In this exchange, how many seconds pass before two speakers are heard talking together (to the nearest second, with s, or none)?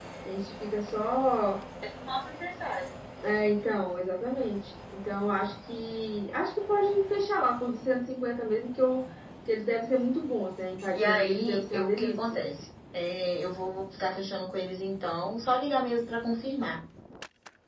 11 s